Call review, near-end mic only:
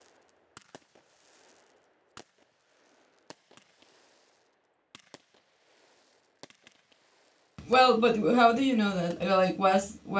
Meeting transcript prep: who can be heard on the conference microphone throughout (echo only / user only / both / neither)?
user only